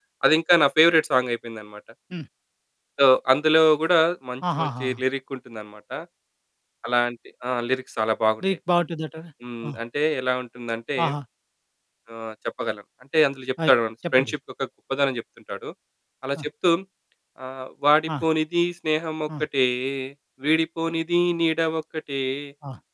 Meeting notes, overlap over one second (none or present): none